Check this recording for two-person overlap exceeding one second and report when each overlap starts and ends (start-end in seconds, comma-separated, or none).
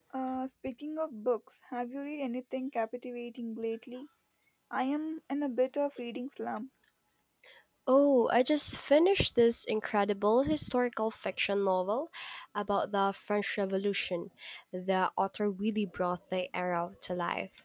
none